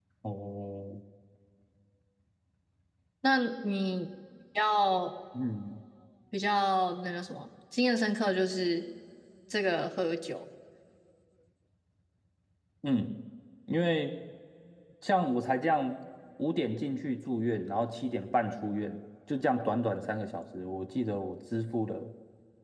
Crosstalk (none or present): none